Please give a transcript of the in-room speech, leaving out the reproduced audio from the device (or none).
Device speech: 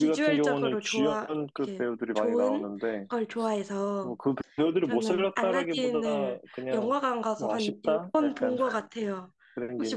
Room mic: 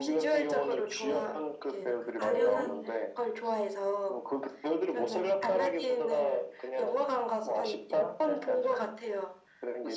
뭐랄까 아련한